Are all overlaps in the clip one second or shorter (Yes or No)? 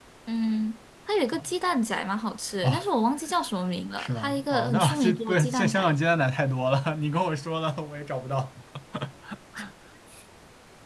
No